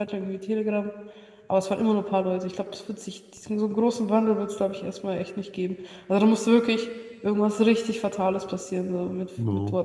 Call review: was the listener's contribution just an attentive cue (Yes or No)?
No